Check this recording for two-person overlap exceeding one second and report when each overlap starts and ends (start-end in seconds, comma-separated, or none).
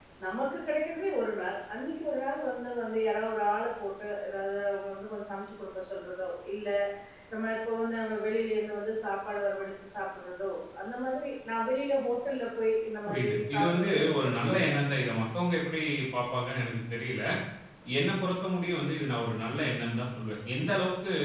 13.1-14.7